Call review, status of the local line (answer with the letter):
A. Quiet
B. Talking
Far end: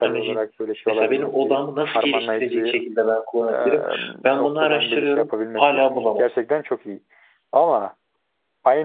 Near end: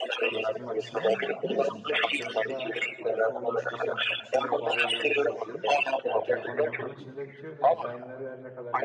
B